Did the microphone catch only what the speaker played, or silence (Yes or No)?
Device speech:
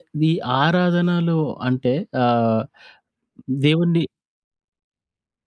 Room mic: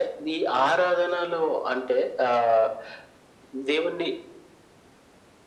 Yes